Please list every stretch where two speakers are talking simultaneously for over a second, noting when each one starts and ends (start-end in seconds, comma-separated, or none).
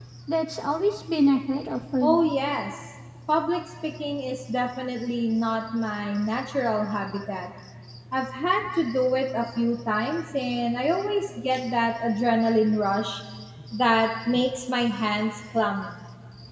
none